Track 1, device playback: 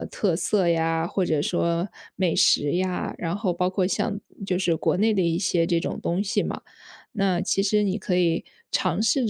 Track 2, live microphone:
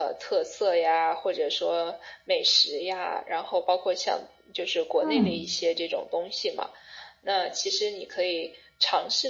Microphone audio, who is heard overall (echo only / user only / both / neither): both